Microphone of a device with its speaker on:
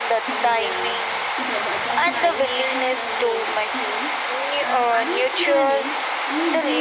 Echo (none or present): present